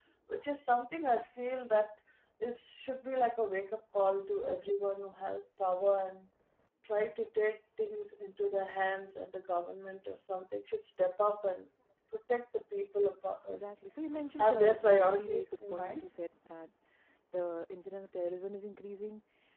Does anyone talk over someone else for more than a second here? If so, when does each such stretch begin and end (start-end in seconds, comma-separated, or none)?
14.4-16.0